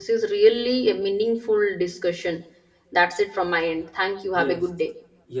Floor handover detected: Yes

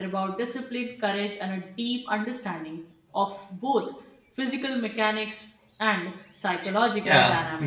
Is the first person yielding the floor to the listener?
Yes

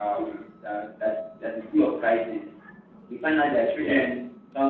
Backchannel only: Yes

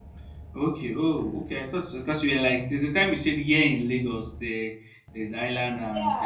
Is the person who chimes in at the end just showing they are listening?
No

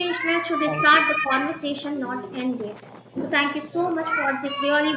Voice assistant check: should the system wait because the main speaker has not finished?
Yes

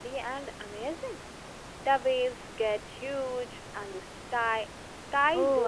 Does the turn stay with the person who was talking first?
No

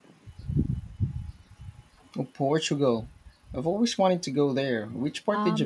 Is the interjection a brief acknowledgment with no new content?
No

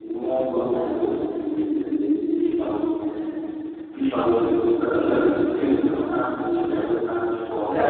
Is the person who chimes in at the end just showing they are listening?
No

